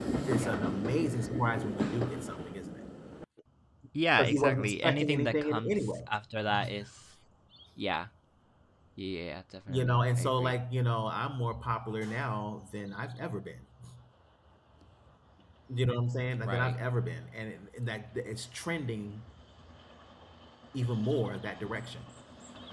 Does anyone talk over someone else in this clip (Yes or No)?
Yes